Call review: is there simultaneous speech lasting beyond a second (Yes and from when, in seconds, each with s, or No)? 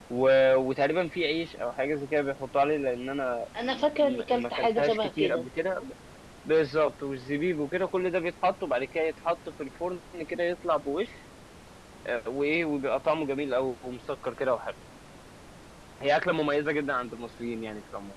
Yes, from 3.5 s